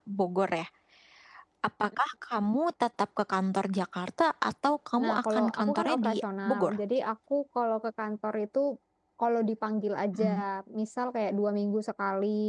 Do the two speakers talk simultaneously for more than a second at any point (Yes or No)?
Yes